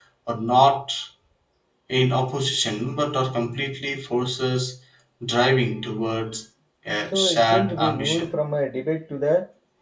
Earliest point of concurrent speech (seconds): 7.1 s

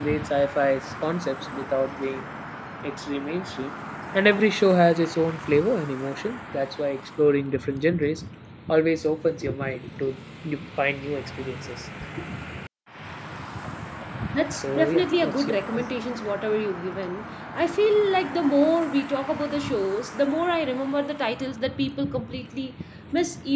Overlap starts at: 14.6 s

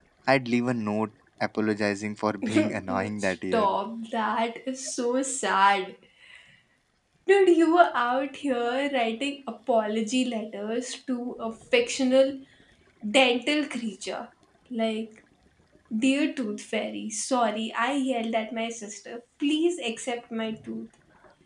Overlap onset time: 2.4 s

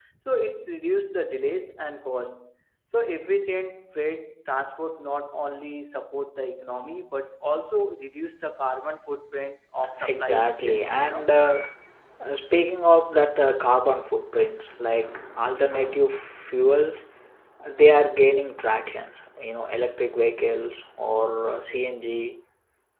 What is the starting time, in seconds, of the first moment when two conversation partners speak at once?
10.0 s

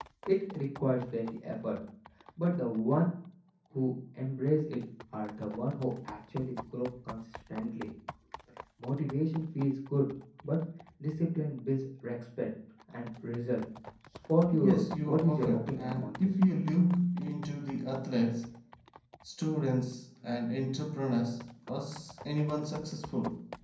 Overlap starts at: 14.6 s

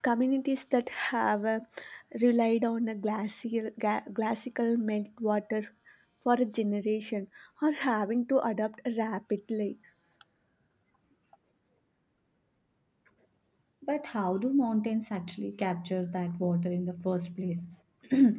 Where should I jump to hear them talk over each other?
none

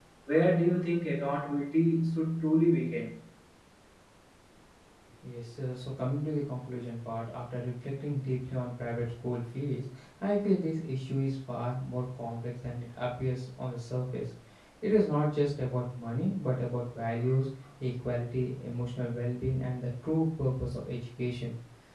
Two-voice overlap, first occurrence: none

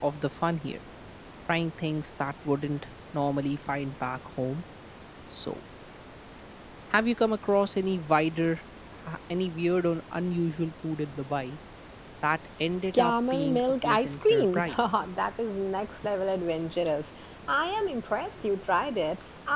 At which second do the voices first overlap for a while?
12.9 s

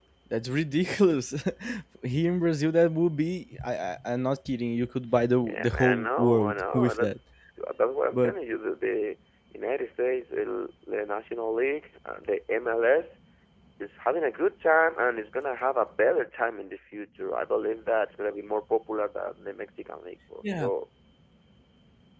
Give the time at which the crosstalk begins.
5.4 s

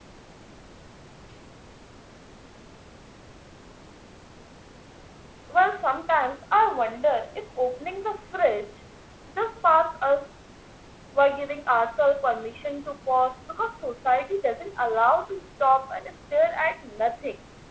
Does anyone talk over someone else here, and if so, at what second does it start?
none

